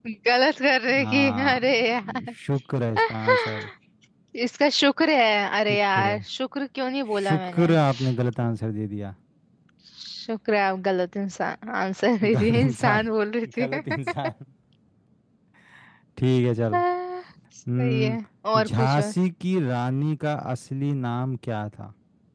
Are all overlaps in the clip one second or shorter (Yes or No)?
No